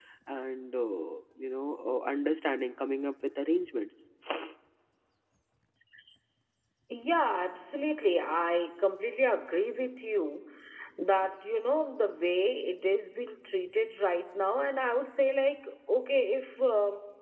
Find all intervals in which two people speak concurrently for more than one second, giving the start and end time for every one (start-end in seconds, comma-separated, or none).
none